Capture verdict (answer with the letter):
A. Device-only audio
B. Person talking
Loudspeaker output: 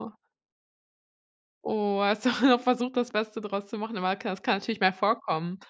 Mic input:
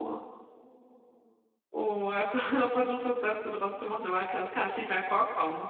A